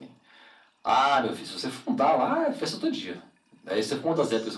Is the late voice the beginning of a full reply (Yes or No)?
No